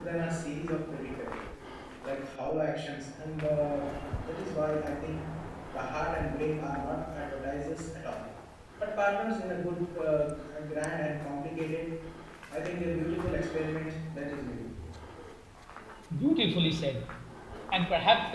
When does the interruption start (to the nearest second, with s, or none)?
none